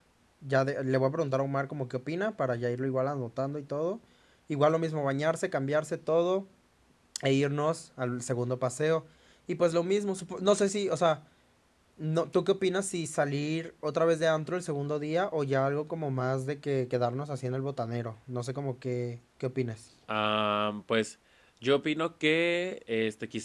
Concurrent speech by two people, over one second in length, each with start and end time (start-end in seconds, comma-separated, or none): none